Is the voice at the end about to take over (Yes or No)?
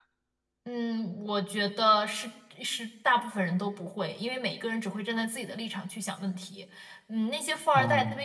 No